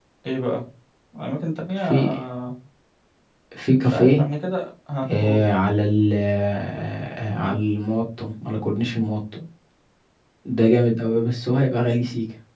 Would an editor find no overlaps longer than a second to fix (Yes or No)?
Yes